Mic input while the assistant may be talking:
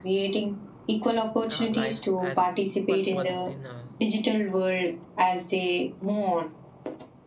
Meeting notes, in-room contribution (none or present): present